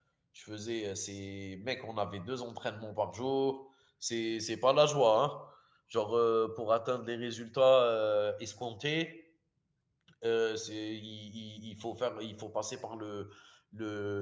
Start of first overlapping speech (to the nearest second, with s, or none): none